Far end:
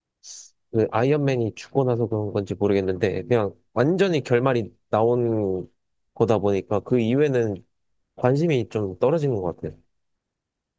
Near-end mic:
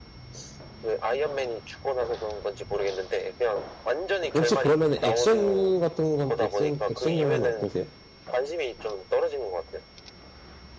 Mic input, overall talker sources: both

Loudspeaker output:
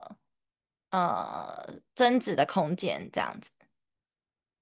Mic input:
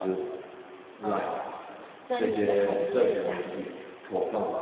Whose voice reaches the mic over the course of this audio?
both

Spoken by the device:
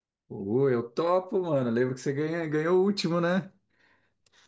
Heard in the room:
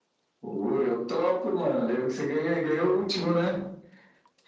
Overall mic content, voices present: echo only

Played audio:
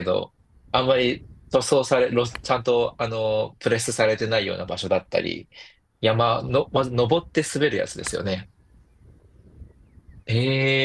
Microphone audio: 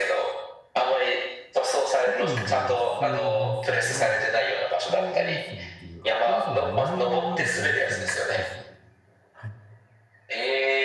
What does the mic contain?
both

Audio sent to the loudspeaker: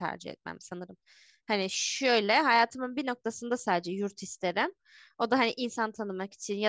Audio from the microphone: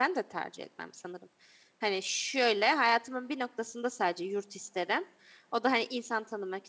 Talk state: echo only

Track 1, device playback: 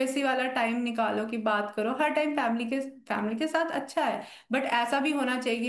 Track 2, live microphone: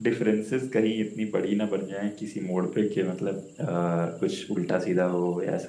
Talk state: user only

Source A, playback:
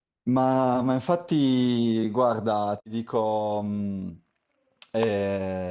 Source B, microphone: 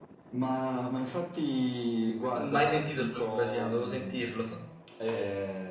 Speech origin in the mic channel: both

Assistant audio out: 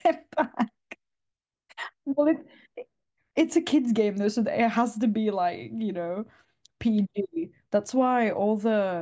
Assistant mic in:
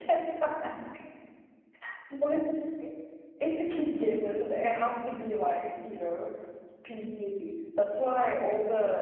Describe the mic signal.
echo only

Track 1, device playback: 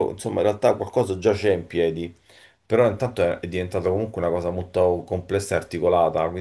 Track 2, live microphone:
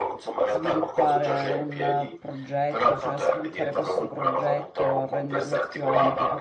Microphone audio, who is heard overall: both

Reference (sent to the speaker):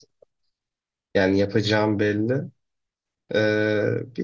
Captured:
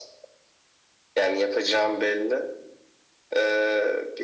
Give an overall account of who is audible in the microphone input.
echo only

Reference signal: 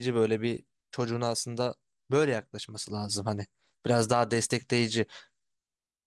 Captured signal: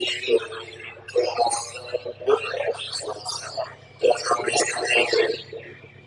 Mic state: echo only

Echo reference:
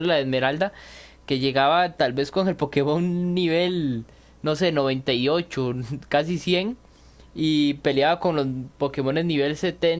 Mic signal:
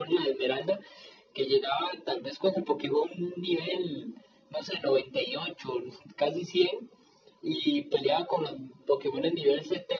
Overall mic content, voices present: echo only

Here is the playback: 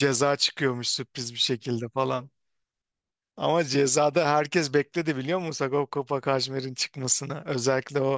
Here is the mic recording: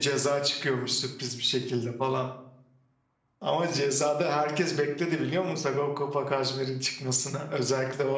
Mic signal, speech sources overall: echo only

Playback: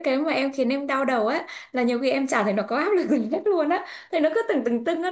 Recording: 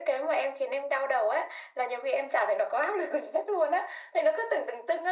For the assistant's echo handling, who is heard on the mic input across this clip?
echo only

